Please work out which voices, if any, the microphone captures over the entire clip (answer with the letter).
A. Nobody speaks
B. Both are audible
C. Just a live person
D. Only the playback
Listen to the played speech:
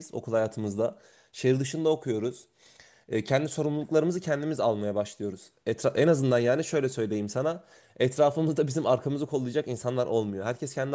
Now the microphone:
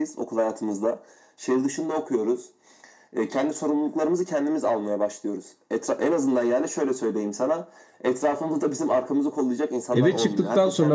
B